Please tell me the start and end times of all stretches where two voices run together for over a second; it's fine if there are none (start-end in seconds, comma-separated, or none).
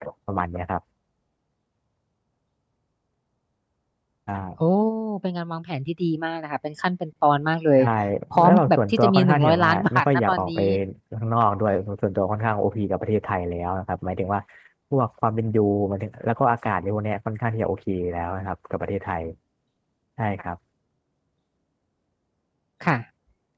8.4-10.6